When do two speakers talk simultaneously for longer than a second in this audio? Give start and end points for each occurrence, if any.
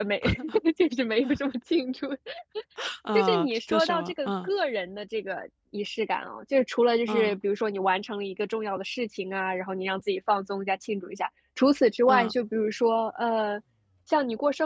3.1-4.5

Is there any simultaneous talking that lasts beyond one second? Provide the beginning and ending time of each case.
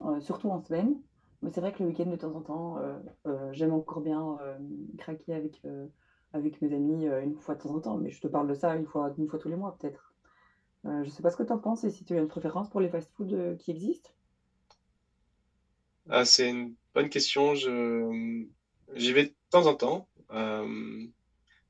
none

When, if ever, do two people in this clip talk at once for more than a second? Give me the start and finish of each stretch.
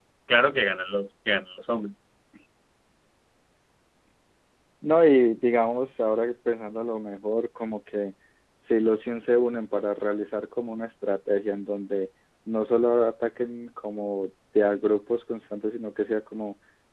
none

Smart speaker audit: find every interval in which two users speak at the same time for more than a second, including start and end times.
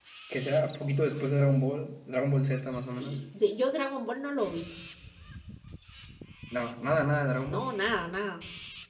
none

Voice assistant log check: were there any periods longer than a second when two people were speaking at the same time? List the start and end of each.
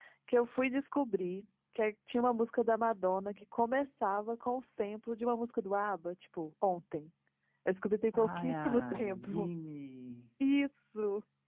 8.2-9.5

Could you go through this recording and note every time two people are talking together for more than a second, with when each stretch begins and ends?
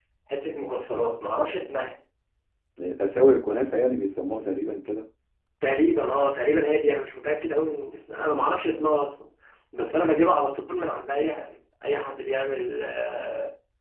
none

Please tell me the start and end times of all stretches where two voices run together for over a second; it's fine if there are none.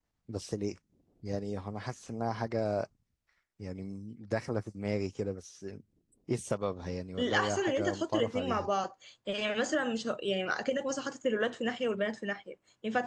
7.2-8.7

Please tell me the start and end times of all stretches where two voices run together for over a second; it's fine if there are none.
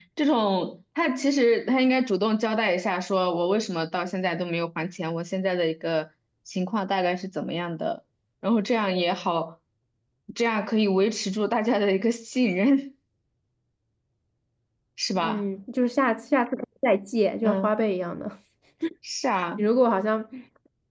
none

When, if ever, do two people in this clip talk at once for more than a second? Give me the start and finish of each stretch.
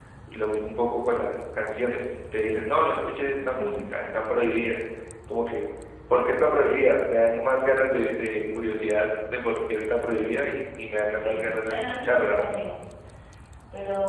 11.1-12.5

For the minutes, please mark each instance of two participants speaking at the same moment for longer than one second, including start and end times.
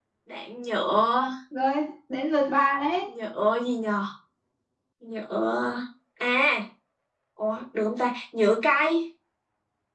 none

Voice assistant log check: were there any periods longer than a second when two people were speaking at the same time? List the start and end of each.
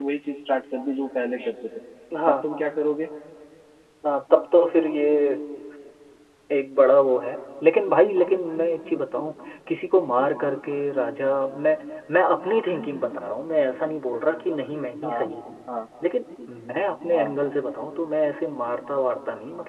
none

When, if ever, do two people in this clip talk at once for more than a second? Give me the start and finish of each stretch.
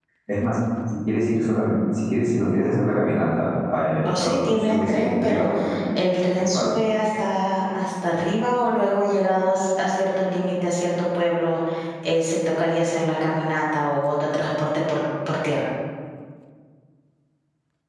4.0-5.5

